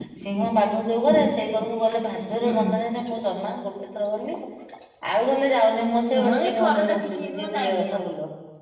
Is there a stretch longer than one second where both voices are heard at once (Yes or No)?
Yes